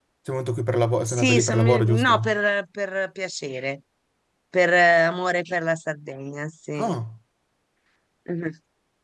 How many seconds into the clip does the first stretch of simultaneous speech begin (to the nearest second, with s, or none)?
1 s